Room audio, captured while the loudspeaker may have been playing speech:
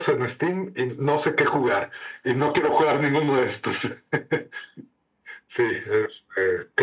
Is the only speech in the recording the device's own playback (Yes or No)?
Yes